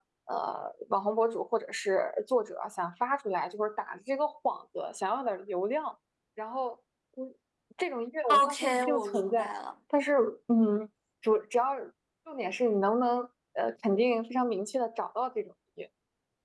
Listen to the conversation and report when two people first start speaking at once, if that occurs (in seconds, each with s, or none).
8.3 s